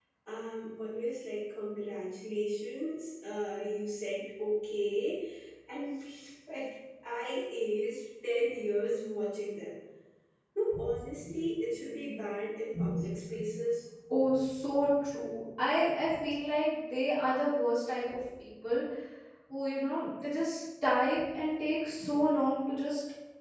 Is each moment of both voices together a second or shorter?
Yes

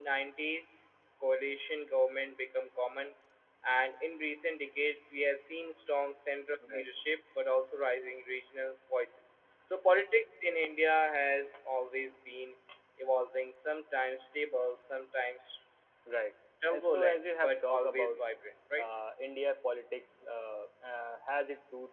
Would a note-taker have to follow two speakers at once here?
Yes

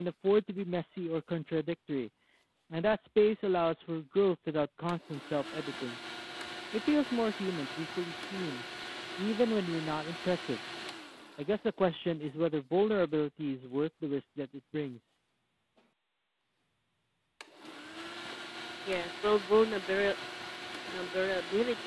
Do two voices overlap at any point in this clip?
No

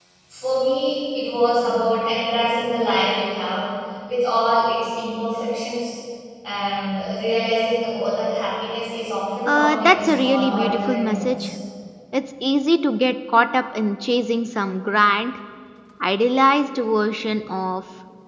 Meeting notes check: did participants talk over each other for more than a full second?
Yes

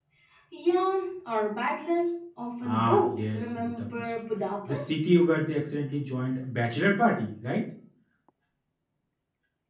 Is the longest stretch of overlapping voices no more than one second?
No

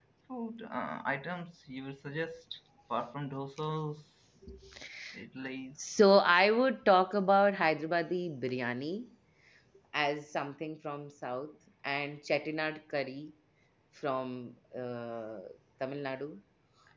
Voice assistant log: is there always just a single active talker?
Yes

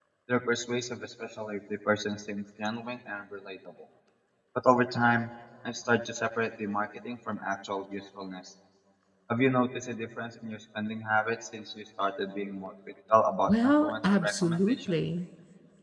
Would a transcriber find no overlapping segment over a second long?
No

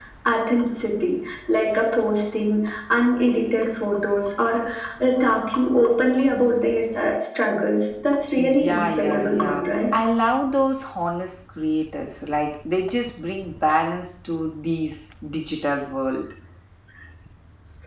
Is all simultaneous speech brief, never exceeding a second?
No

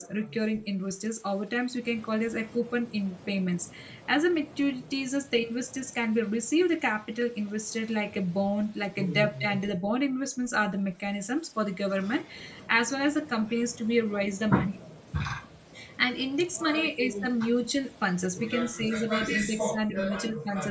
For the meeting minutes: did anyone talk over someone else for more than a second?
Yes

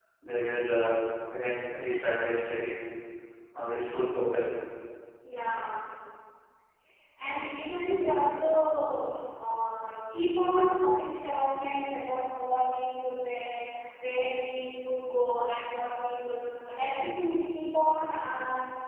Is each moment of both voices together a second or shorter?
Yes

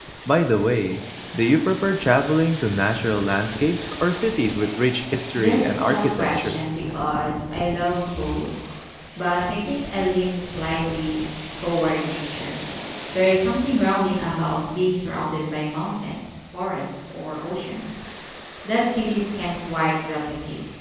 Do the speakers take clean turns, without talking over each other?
No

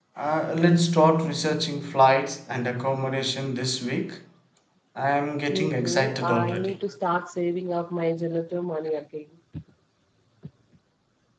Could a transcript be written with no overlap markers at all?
No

